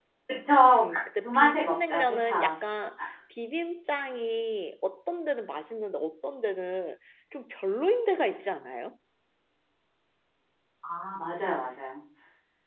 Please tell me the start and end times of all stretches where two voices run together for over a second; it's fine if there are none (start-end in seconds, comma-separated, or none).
0.8-2.6